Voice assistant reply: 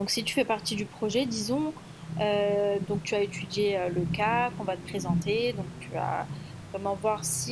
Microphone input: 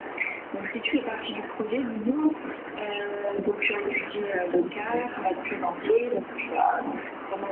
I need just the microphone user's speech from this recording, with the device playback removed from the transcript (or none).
none